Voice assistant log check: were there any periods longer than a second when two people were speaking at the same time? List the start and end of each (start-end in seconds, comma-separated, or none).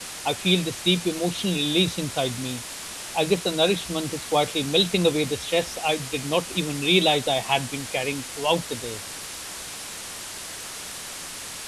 none